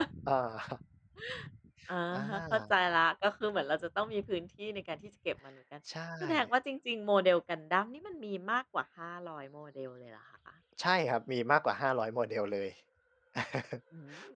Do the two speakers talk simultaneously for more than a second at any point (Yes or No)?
No